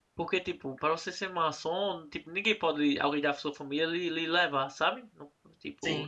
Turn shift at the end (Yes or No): No